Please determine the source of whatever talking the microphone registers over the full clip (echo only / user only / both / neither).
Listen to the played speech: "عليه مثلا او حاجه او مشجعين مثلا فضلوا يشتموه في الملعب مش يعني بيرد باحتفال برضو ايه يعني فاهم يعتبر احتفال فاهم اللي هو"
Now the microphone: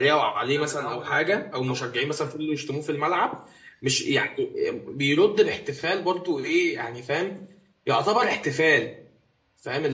both